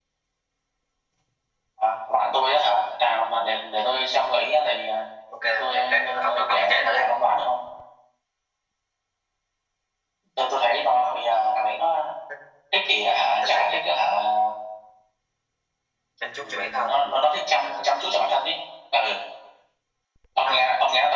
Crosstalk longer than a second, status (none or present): present